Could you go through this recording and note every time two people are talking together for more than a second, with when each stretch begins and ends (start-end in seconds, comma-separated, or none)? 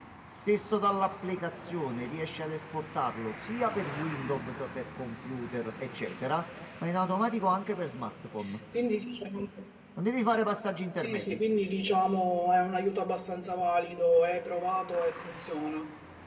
none